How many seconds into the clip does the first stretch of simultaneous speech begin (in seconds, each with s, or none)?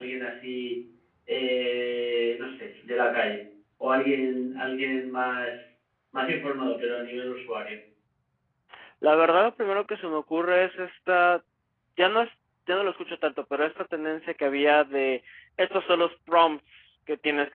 none